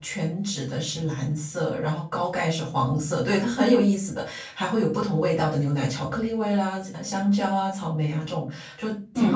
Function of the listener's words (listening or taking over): listening